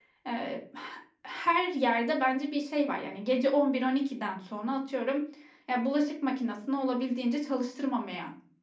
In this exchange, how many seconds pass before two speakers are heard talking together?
none

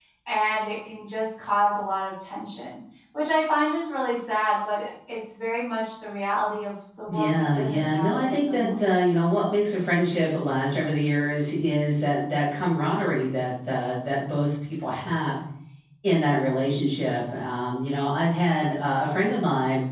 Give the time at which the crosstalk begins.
7.1 s

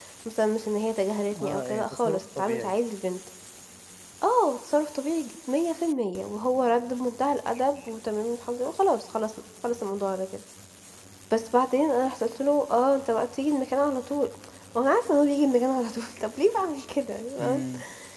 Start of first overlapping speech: 1.4 s

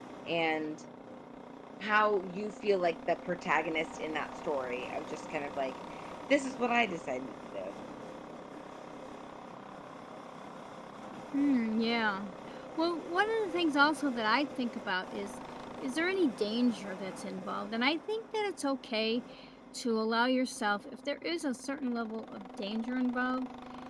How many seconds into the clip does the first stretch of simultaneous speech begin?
none

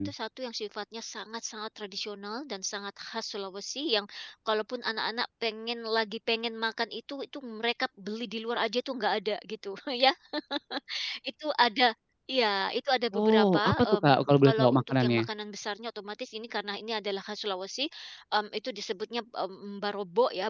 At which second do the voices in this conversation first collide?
13.1 s

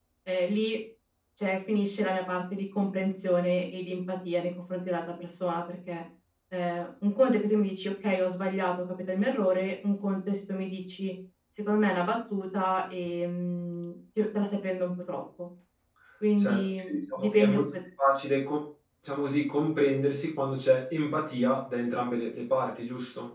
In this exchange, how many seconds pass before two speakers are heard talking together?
16.4 s

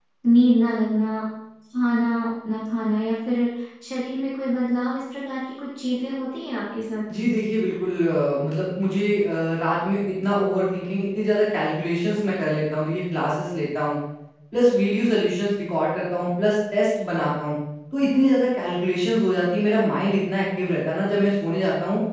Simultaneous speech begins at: none

